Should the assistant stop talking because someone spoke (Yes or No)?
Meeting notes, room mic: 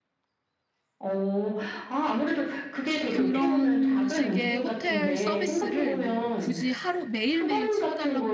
Yes